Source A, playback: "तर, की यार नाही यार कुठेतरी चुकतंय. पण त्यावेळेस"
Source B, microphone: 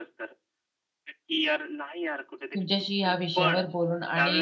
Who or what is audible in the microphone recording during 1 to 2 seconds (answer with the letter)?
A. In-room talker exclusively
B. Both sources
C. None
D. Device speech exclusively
D